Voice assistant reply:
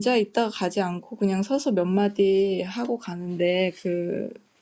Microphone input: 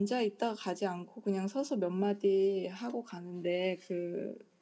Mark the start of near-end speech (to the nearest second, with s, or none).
none